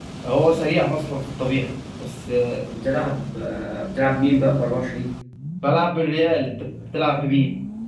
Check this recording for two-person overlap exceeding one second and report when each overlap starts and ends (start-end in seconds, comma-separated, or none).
none